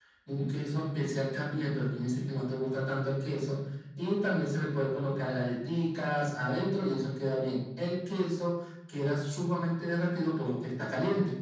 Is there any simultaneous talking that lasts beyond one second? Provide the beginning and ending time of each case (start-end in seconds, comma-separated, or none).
none